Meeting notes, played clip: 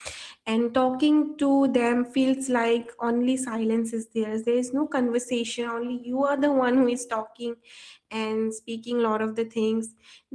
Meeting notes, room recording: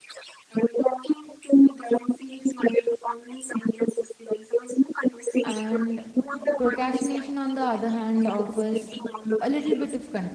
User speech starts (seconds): 5.4 s

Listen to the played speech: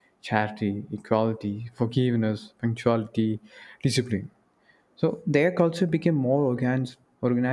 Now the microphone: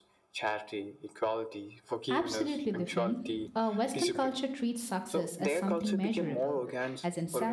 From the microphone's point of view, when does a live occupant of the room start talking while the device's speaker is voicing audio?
2.1 s

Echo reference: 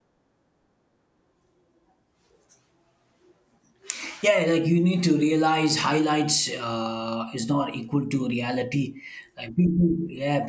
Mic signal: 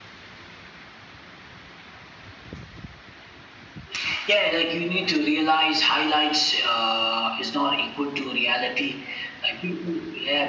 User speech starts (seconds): none

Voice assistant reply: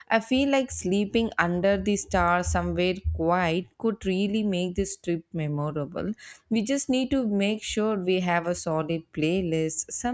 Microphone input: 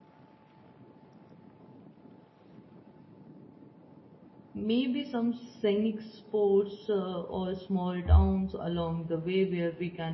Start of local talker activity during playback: 4.6 s

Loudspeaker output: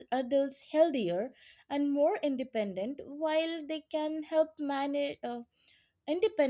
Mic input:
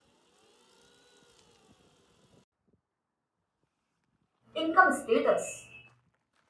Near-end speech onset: 4.5 s

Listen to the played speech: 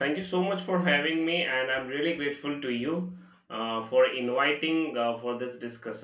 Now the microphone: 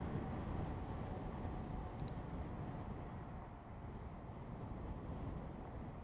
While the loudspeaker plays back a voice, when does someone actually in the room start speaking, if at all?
none

